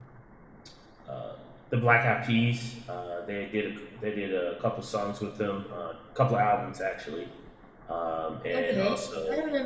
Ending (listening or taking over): taking over